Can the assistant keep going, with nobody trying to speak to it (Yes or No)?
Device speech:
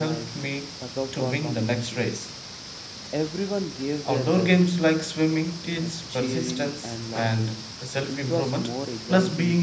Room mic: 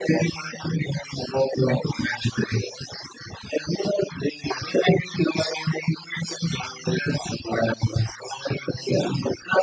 Yes